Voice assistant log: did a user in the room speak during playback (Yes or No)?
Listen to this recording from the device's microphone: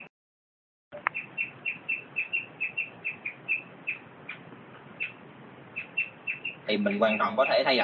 Yes